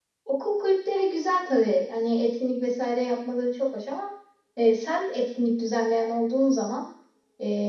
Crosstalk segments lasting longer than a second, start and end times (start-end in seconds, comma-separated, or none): none